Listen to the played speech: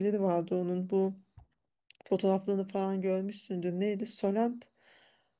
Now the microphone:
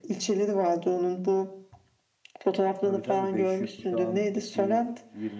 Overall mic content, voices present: both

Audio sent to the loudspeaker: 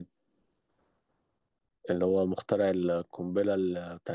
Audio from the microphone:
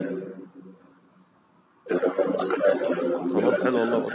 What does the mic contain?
both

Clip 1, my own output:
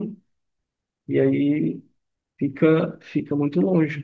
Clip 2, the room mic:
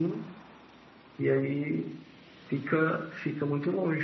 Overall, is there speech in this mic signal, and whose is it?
echo only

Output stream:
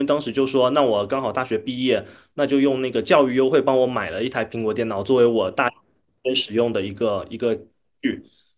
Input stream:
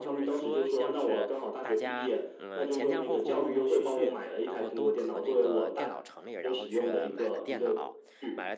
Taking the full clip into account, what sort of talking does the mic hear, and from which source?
both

